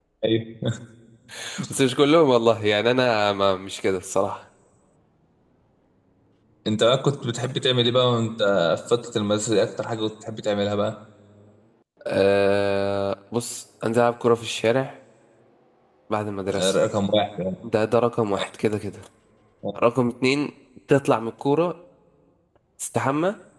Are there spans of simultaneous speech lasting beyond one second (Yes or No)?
No